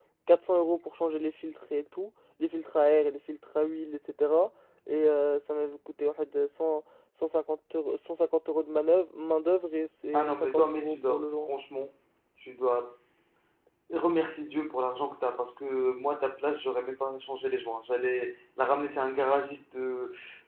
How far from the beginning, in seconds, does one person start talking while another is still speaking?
10.1 s

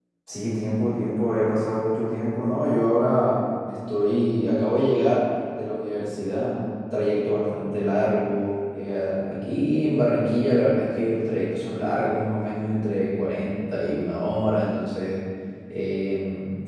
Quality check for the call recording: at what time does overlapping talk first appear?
none

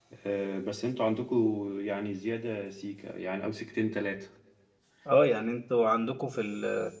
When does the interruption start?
none

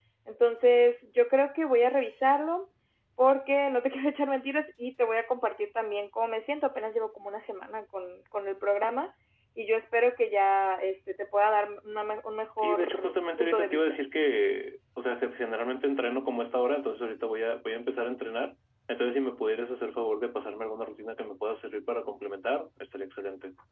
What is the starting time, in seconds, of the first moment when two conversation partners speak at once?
12.6 s

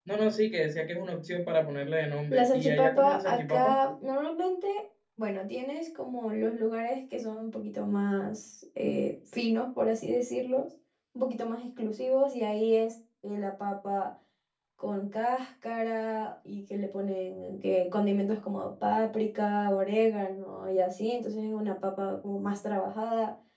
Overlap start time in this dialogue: 2.3 s

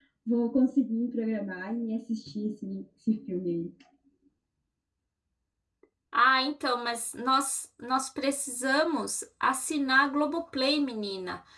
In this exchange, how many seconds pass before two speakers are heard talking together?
none

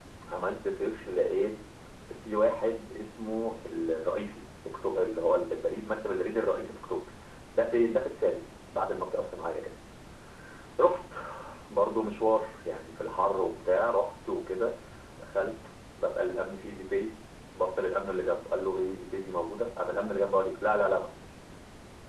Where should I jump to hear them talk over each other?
none

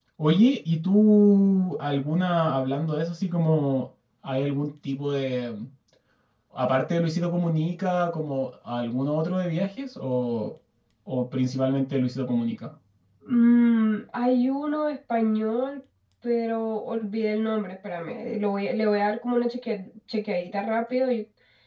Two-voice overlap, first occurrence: none

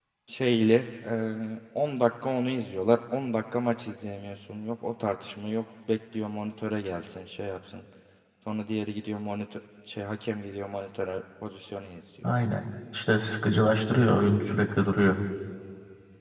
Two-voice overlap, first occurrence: none

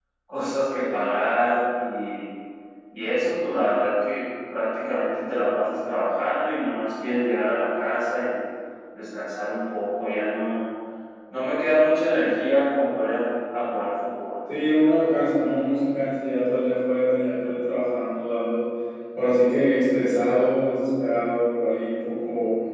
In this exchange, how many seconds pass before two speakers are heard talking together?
none

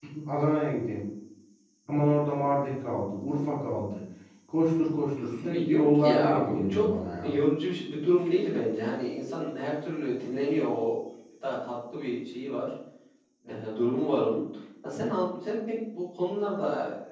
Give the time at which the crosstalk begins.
5.4 s

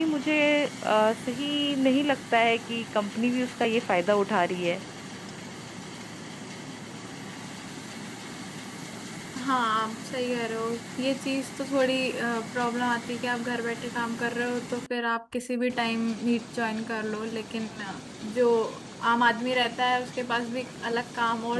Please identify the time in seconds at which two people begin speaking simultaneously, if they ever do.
none

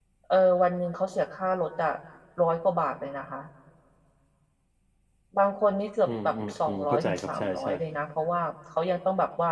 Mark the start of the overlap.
6.1 s

